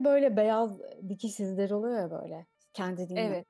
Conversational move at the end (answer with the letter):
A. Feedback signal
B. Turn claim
A